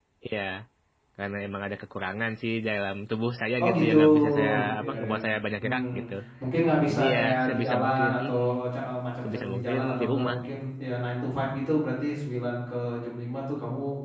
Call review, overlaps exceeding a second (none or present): present